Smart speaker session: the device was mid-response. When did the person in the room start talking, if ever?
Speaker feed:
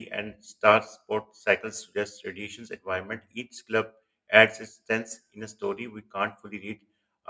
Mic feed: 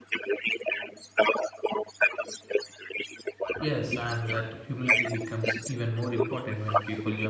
4 s

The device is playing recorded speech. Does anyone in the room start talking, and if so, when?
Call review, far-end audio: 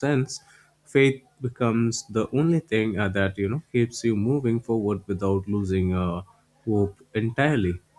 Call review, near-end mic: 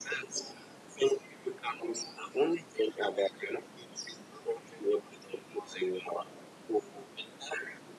none

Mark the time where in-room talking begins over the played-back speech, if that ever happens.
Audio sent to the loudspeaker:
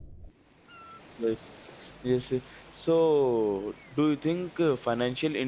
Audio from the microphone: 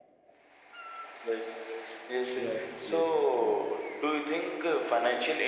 2 s

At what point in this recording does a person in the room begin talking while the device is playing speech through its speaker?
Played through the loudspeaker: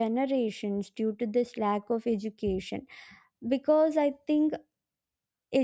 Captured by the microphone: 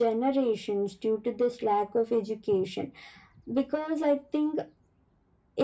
none

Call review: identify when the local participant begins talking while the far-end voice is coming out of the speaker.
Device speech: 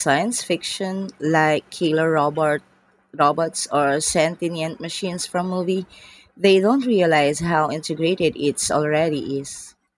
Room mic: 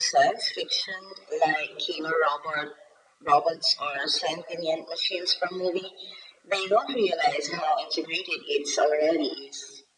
none

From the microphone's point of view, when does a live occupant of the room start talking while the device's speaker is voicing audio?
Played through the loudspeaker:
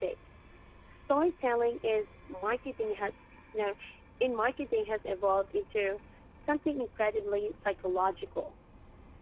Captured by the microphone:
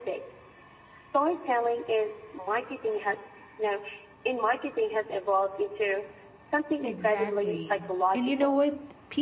7 s

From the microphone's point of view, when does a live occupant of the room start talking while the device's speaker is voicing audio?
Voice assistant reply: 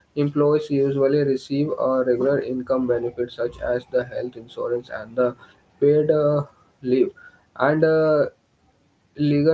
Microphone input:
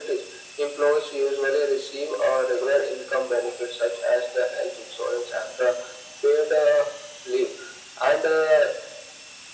none

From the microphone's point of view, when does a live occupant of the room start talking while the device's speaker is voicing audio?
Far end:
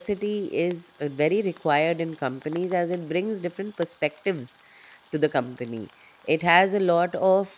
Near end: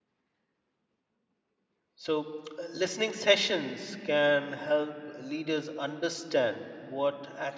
2 s

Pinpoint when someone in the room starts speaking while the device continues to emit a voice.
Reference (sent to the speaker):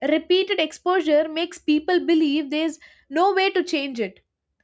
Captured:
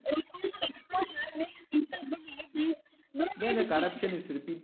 3 s

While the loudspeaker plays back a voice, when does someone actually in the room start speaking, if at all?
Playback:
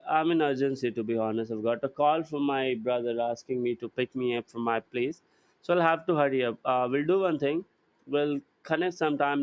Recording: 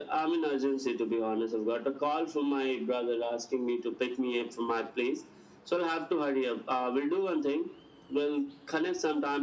none

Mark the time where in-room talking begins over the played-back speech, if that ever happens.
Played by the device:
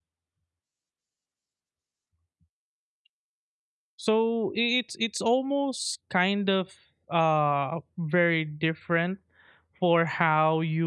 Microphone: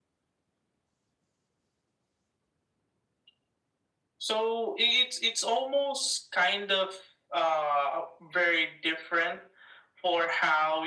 none

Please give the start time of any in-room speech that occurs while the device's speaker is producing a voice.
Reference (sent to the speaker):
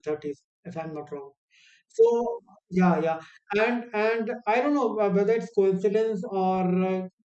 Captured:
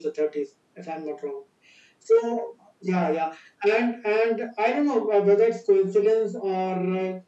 none

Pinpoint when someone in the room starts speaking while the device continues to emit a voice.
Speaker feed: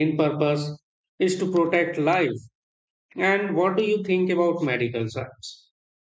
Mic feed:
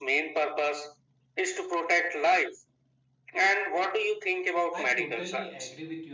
5 s

